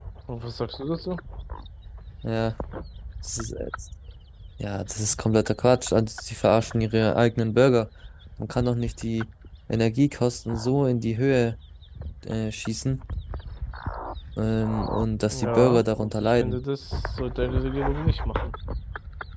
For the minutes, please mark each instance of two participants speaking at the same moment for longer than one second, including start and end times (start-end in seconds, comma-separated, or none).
15.2-16.6